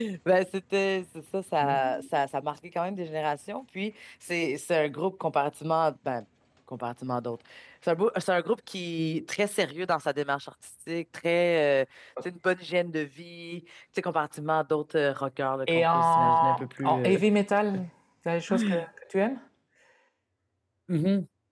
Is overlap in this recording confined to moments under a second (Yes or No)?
No